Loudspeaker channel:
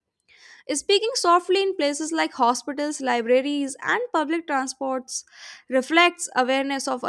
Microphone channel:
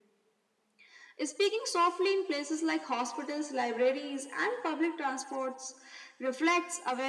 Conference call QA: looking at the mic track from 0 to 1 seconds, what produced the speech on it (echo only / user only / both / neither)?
neither